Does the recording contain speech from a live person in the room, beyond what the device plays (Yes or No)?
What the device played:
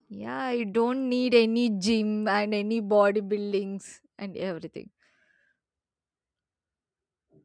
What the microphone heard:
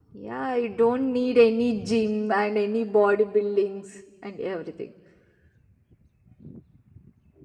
No